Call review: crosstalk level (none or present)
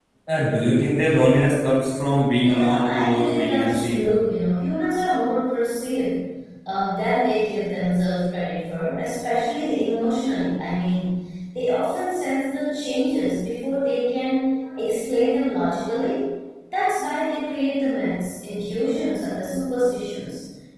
present